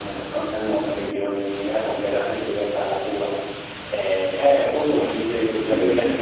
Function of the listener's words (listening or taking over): listening